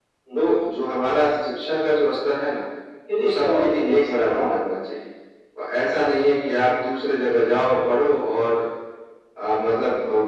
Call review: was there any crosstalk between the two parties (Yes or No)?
Yes